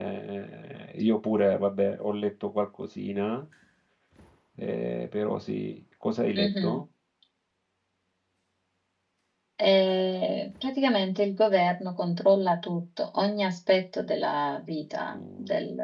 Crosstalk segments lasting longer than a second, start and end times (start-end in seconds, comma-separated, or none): none